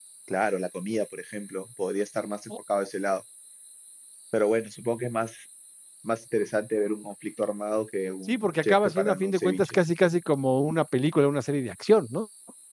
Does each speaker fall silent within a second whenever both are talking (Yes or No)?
No